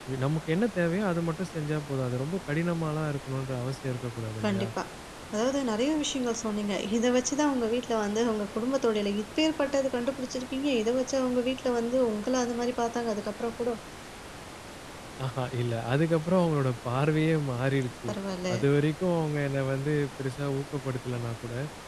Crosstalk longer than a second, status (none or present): none